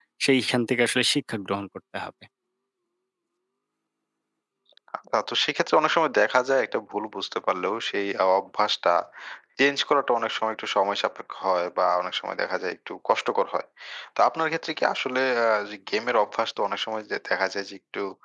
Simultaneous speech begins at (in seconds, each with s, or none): none